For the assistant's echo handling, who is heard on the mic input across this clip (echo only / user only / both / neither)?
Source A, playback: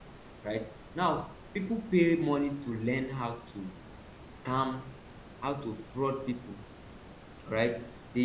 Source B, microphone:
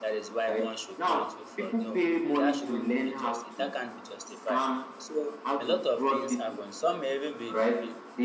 both